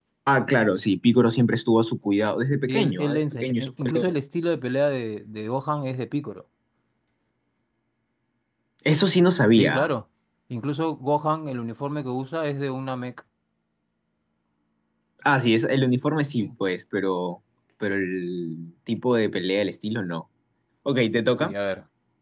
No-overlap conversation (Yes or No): No